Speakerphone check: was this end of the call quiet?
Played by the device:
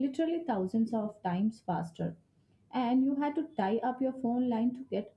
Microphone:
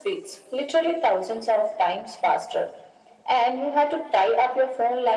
Yes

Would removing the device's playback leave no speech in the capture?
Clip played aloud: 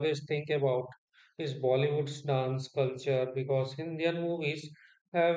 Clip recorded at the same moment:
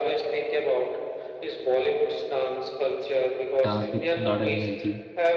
No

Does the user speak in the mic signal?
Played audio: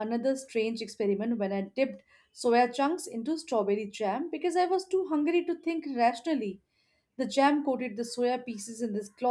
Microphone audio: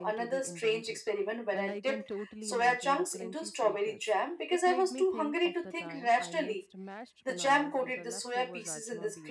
Yes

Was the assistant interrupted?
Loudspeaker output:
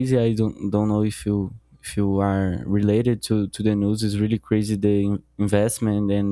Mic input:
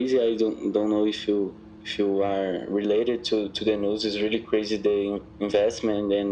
No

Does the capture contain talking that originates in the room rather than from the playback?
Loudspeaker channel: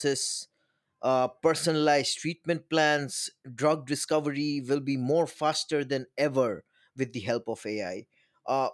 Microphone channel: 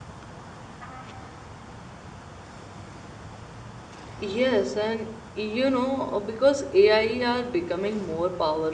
Yes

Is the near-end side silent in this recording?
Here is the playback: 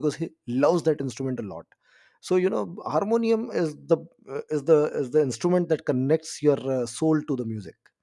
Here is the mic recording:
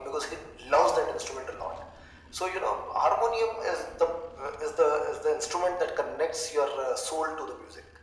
Yes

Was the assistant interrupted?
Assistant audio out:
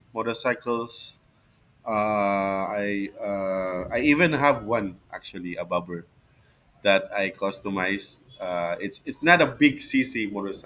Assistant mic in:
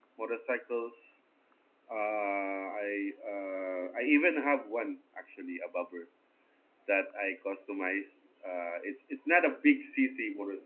No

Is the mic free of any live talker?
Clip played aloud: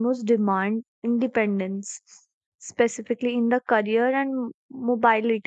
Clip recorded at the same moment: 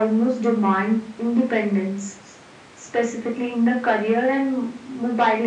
Yes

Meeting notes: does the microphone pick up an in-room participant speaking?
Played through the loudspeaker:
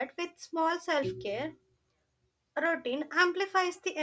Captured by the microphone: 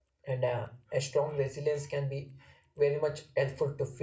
Yes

